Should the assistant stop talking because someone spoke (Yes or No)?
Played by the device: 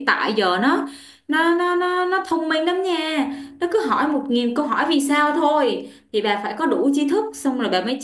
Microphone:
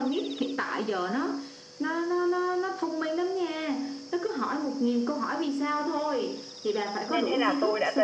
Yes